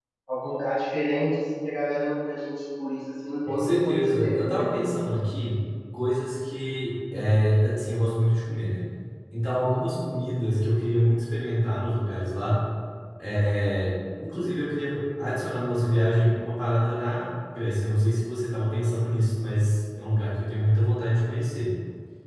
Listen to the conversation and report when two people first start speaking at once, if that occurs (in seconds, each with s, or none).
3.5 s